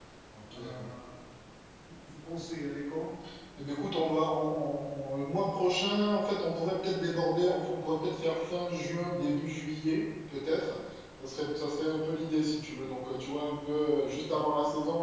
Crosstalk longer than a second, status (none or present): none